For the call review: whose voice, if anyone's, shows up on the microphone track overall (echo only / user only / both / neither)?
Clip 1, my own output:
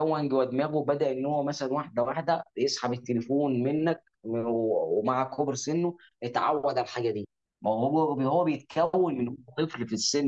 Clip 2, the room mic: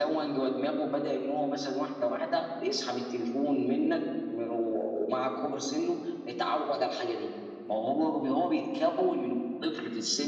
echo only